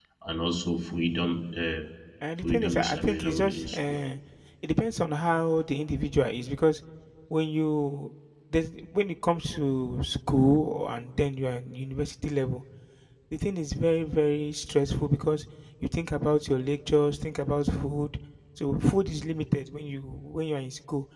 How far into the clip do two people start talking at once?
2 s

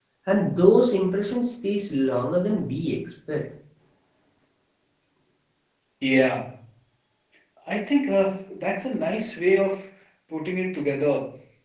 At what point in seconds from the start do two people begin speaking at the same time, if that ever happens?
none

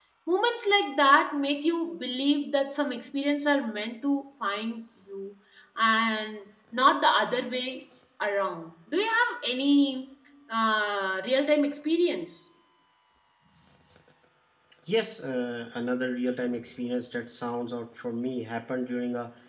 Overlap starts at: none

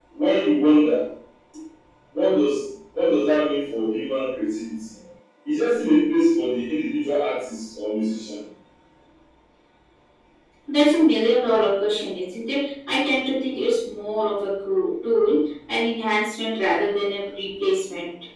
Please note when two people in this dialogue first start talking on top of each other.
none

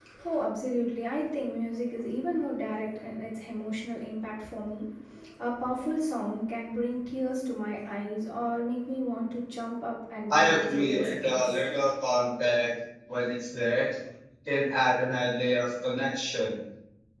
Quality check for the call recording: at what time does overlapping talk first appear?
10 s

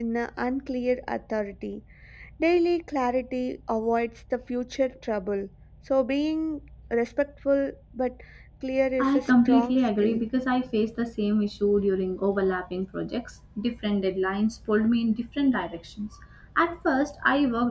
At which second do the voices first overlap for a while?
9 s

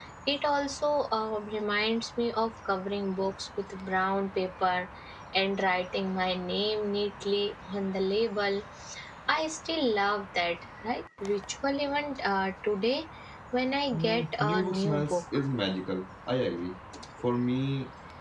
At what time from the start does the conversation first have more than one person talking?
14 s

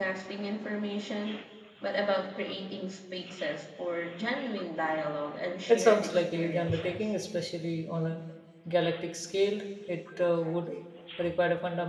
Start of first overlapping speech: 6 s

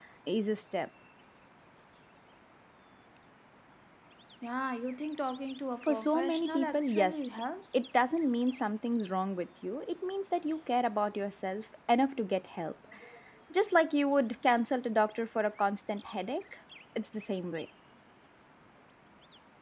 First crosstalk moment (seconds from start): 6 s

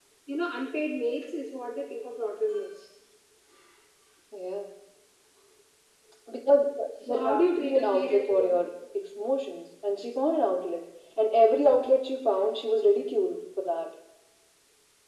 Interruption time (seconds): 7 s

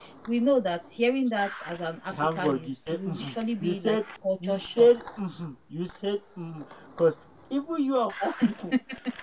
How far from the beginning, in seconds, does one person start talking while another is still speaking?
2 s

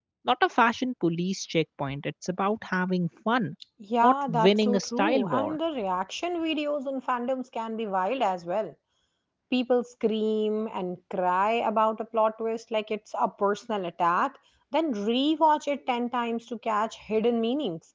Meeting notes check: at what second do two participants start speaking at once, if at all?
4 s

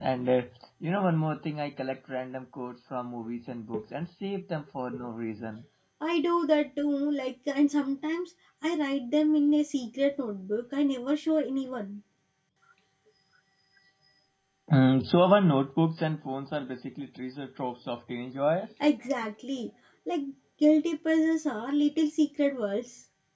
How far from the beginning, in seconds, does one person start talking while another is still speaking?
none

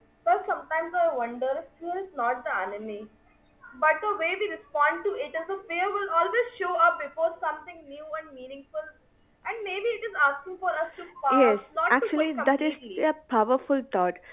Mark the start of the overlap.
11 s

